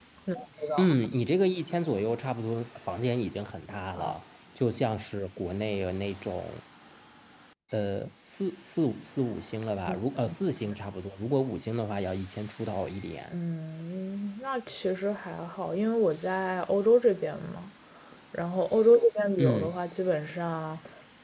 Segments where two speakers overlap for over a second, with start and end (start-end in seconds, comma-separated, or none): none